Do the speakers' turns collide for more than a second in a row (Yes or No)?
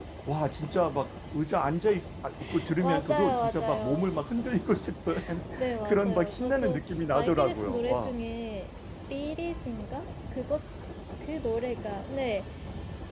Yes